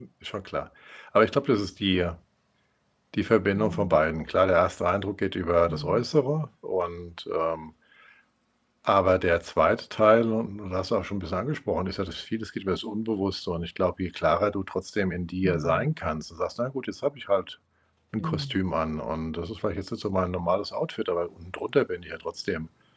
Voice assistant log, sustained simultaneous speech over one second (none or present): none